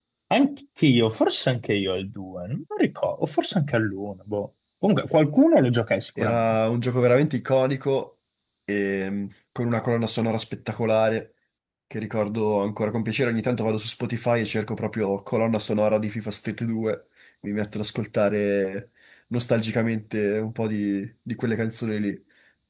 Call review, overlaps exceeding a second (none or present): none